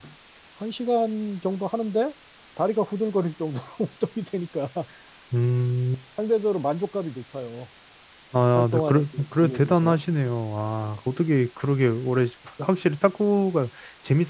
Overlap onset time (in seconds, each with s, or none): 8.5 s